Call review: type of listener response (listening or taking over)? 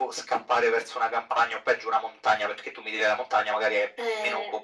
listening